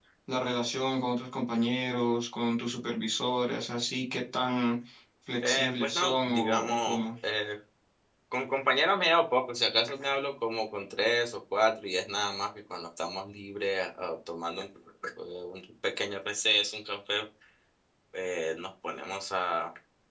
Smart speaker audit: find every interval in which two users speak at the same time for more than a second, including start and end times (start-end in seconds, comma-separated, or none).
5.5-7.0